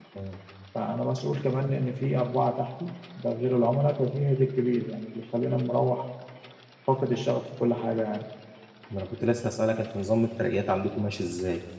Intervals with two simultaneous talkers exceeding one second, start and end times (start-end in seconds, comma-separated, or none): none